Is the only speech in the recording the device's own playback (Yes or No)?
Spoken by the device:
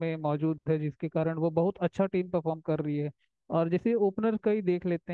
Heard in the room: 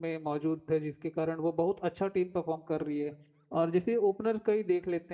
Yes